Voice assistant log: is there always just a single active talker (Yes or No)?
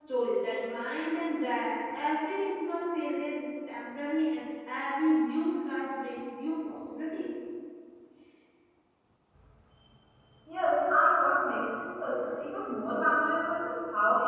Yes